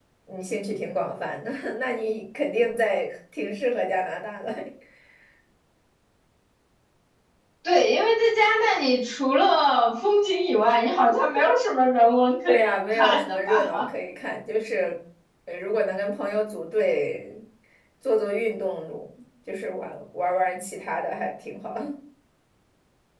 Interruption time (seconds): 12.5 s

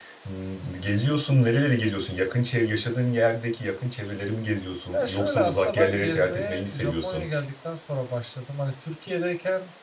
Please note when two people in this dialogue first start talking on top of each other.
4.9 s

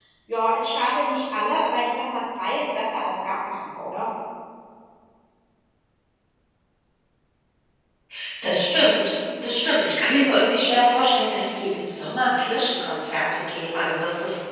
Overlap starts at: none

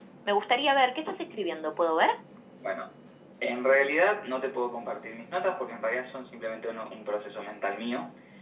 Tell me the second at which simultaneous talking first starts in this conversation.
none

